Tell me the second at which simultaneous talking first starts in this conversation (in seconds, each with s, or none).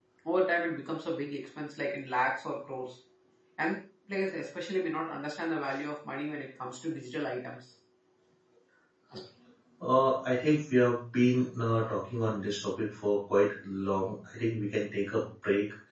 none